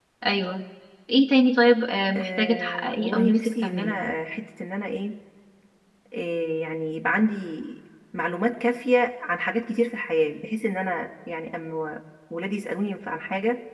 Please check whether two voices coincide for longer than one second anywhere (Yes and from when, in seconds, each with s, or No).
Yes, from 2.1 s